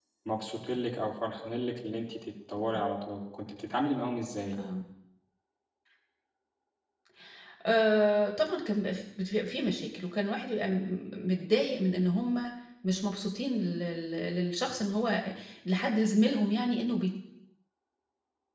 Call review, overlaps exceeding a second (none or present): none